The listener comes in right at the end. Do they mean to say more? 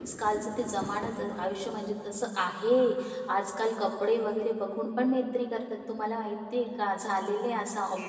Yes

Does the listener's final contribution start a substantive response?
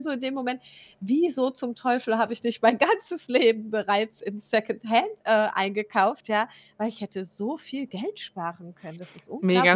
Yes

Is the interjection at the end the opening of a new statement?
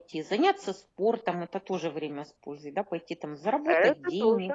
Yes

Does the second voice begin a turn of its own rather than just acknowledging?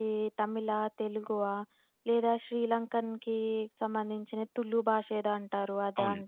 Yes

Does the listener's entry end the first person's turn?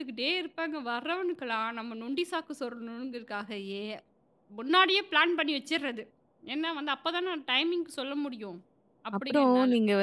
Yes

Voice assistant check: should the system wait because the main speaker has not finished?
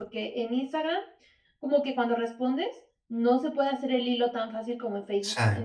Yes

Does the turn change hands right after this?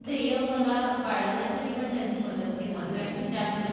No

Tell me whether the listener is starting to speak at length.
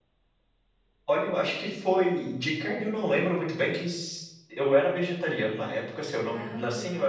No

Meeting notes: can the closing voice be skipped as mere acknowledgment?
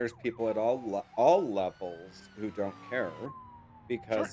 Yes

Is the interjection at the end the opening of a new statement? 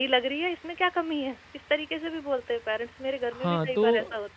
Yes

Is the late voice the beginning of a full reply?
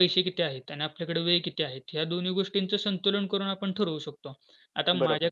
No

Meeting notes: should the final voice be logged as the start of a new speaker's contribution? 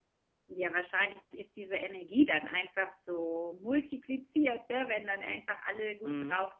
No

